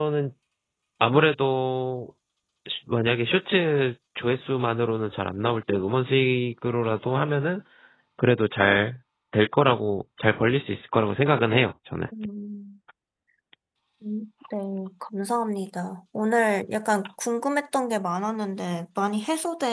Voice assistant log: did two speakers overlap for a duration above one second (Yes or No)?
No